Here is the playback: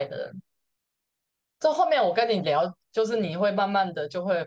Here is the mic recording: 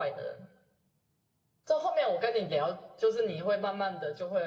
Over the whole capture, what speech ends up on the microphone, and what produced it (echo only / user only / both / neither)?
echo only